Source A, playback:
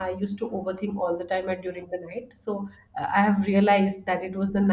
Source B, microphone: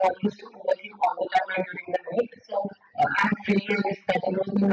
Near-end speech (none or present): none